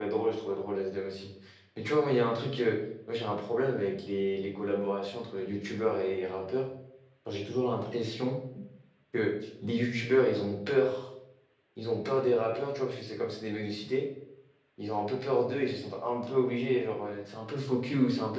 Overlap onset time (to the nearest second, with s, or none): none